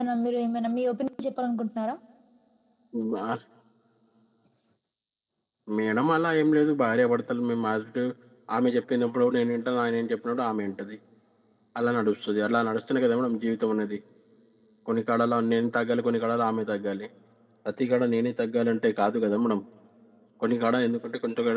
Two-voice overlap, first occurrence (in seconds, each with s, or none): none